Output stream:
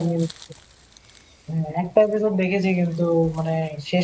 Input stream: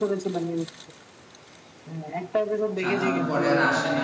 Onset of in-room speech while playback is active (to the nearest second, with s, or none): 3 s